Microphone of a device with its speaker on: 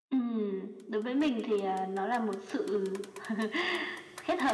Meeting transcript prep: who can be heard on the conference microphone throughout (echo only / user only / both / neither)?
echo only